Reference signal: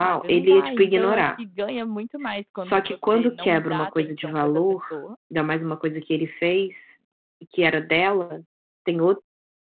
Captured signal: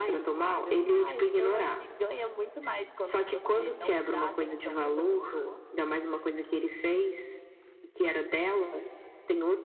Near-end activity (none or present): none